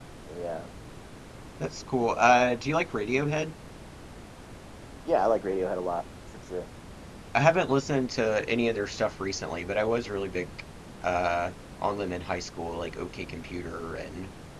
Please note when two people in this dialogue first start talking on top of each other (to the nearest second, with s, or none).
none